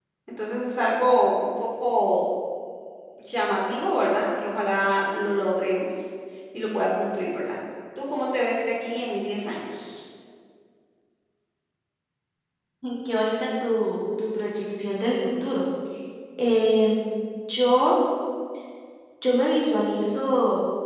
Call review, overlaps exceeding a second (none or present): none